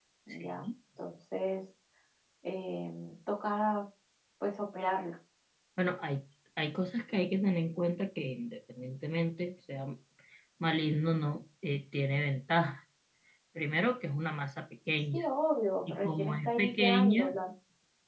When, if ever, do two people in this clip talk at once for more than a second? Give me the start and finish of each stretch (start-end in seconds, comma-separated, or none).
15.9-17.4